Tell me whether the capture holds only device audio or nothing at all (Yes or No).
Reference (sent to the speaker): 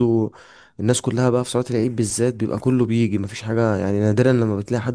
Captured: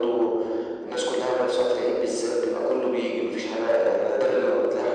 Yes